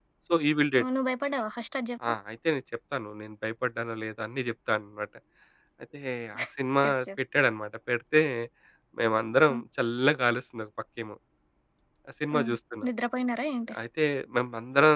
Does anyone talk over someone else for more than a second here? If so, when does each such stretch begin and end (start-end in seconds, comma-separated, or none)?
none